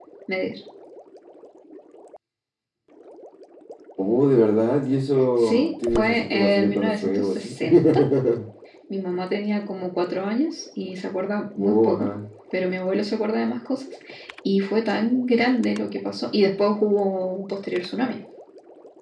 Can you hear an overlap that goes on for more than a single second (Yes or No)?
Yes